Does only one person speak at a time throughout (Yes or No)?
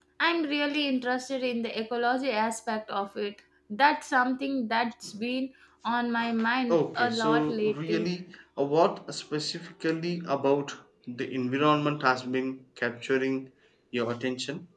No